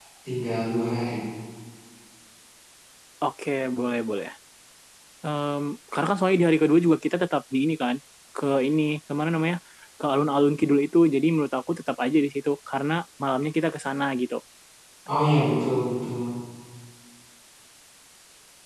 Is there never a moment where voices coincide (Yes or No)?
Yes